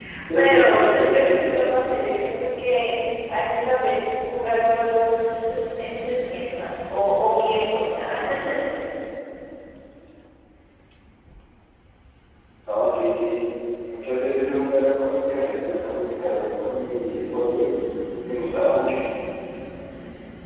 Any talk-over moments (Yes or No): Yes